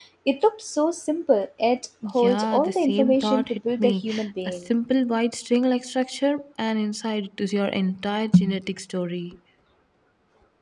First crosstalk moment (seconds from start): 2.2 s

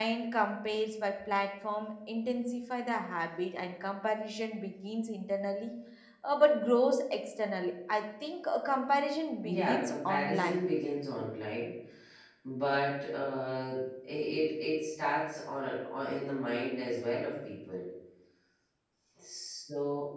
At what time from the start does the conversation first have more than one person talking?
9.4 s

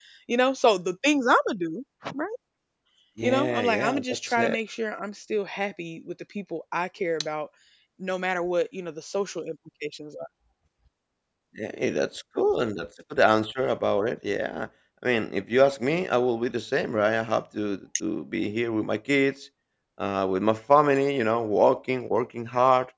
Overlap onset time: 3.2 s

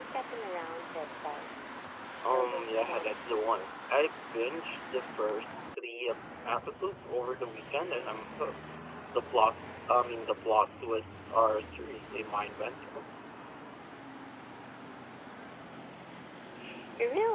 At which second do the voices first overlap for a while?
2.3 s

